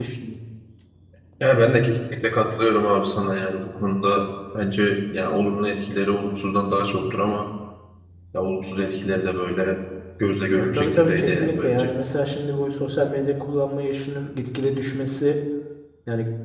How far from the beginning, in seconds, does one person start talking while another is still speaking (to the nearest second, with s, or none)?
11 s